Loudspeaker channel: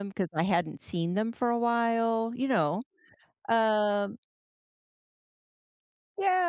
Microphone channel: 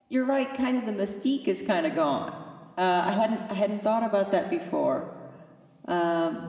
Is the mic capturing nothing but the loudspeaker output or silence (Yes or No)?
No